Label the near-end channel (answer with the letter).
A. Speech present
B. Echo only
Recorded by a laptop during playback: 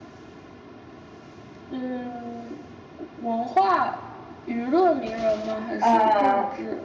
A